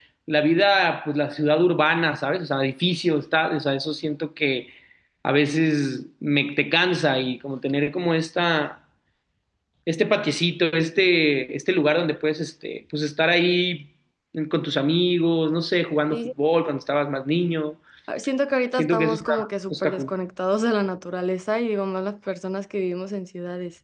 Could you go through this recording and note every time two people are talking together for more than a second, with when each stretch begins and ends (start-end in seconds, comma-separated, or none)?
18.7-20.1